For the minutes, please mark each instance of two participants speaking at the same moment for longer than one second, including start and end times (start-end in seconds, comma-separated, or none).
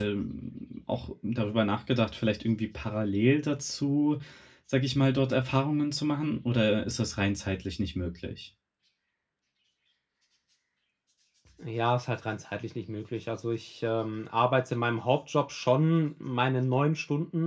none